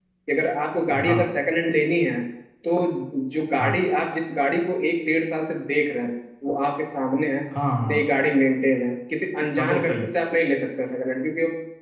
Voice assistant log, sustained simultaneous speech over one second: none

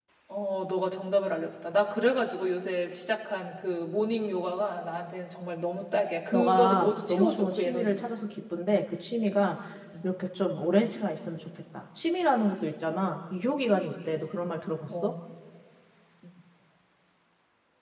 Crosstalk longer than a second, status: present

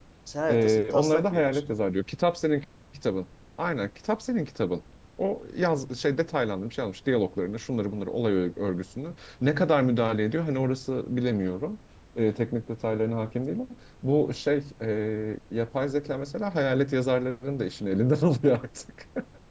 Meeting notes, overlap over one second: present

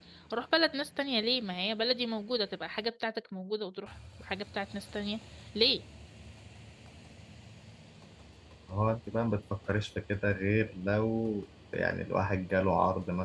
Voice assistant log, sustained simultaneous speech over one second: none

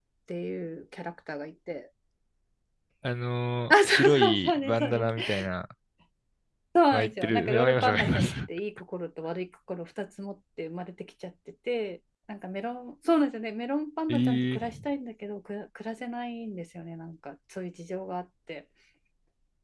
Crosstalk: present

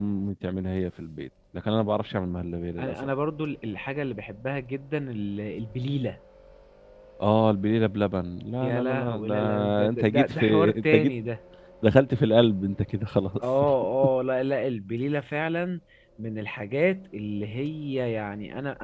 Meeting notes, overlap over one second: present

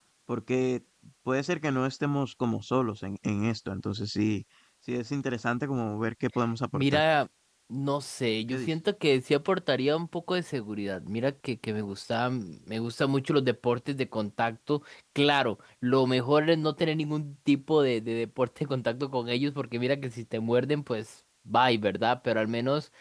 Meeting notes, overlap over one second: none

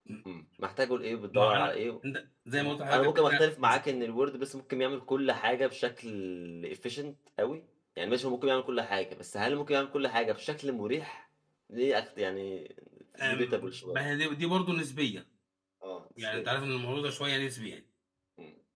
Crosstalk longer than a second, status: present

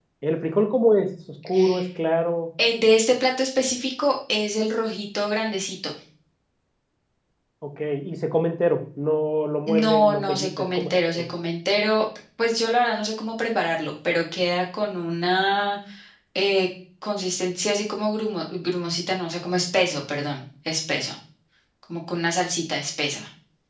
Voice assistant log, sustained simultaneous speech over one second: present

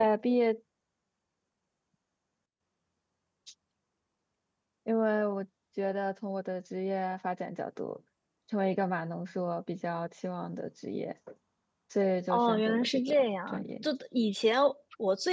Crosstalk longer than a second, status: present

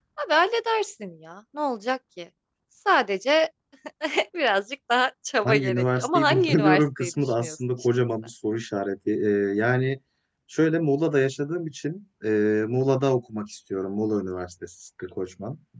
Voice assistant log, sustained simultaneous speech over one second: present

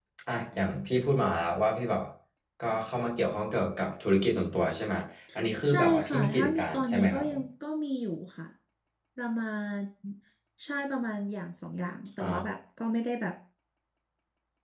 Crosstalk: present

